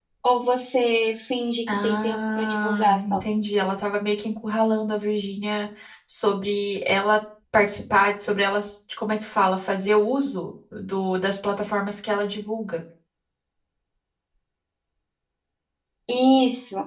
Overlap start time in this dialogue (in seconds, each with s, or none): 1.7 s